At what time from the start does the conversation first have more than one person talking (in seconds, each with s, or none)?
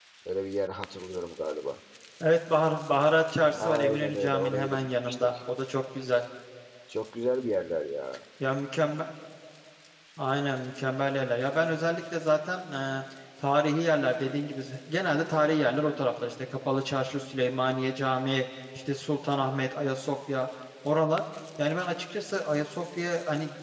3.6 s